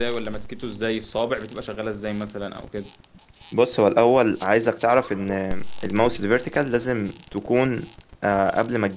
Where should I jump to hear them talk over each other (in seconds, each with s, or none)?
none